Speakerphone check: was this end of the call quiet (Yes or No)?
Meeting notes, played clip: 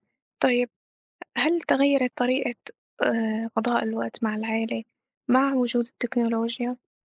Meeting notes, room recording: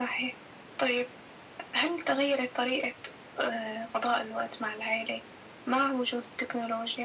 Yes